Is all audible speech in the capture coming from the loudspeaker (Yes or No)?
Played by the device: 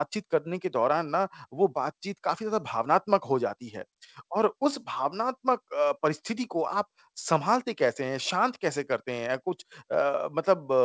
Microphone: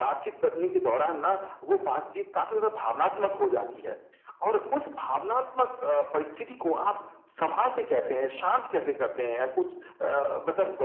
Yes